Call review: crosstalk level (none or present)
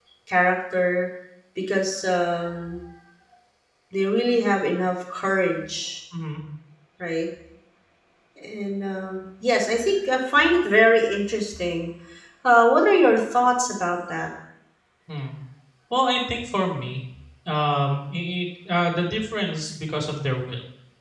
none